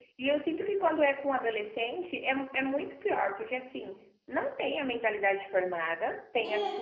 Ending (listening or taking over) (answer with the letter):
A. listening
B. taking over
A